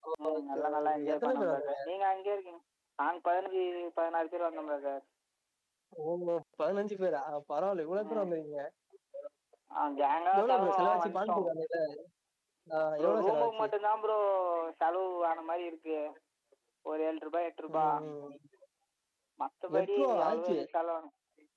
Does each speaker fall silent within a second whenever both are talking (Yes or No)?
No